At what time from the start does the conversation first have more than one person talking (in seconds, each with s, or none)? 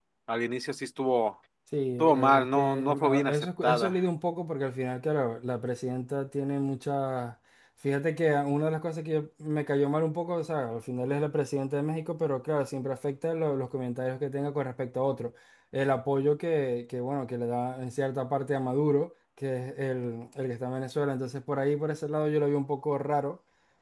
2.0 s